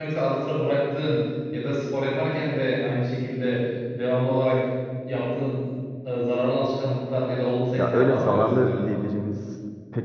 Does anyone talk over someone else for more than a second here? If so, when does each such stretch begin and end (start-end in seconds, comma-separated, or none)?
7.8-9.0